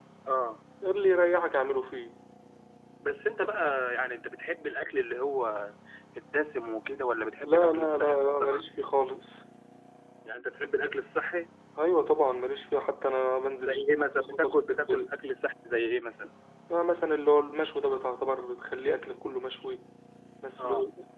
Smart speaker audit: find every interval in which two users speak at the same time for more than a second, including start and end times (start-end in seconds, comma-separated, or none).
7.5-8.7, 13.7-15.1